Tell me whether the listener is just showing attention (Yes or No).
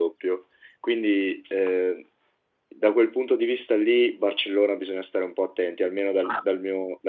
Yes